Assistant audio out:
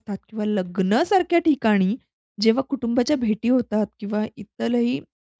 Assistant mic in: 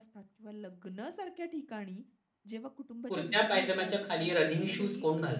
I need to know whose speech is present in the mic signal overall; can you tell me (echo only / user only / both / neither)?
both